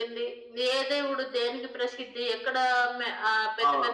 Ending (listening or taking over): listening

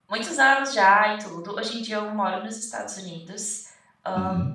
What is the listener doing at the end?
listening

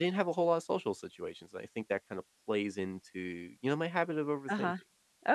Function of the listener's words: taking over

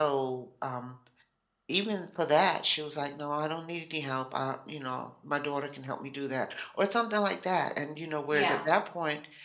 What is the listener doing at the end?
listening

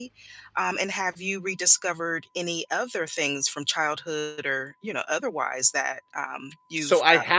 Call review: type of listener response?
taking over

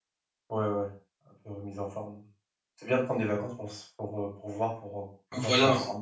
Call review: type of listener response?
taking over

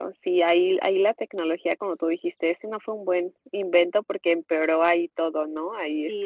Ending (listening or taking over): taking over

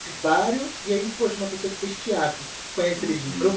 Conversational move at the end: listening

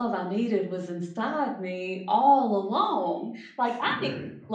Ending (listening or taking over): listening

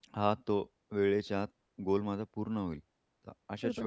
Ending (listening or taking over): taking over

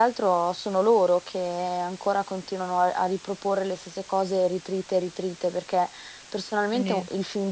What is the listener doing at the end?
listening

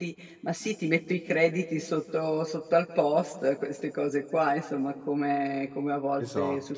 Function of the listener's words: listening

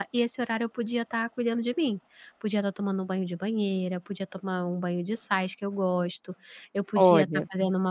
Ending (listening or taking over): listening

